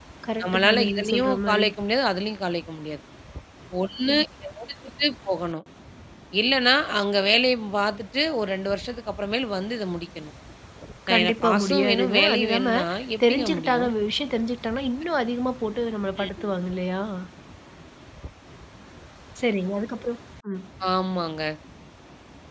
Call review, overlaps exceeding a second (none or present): present